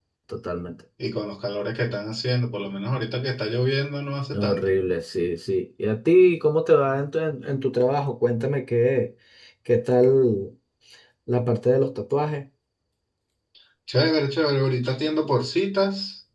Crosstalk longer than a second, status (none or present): none